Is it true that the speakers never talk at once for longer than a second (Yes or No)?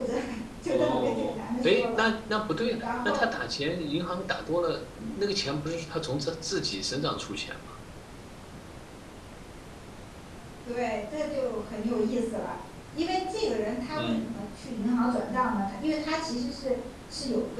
No